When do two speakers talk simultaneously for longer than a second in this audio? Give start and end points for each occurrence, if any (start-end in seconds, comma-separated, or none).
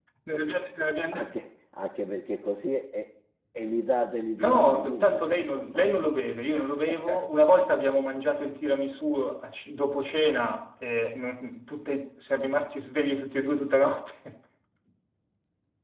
4.4-6.0